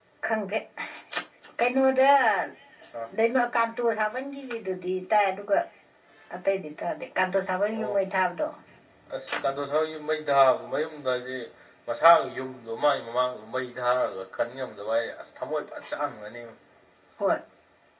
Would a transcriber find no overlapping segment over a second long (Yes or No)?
Yes